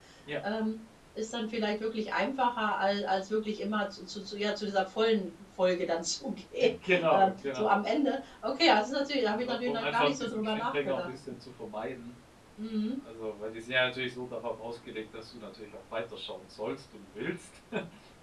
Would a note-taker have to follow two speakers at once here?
Yes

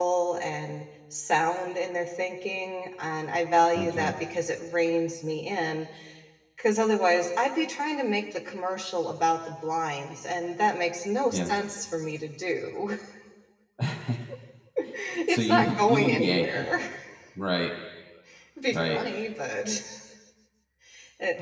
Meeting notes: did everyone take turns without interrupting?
No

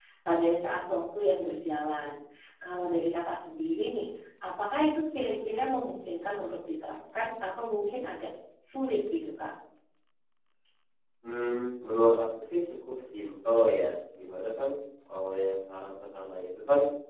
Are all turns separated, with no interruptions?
Yes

